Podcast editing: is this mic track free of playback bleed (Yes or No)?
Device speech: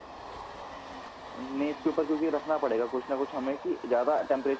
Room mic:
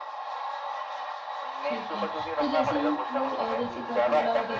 No